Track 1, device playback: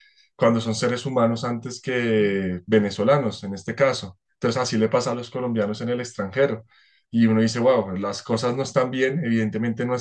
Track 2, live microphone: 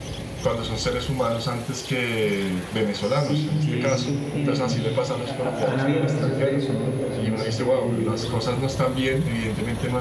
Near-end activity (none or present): present